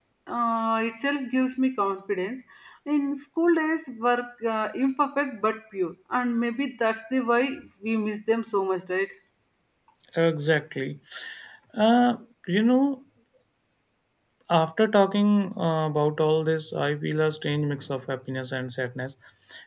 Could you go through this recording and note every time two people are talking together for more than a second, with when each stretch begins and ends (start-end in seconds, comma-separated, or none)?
none